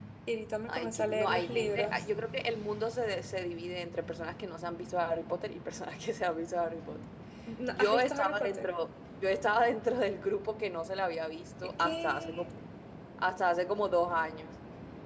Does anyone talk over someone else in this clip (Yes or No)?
Yes